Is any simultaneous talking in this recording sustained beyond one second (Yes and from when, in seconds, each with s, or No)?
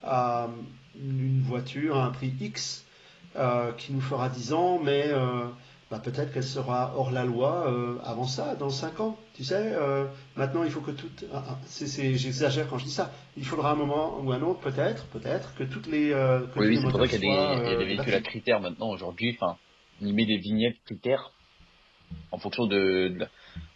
Yes, from 16.6 s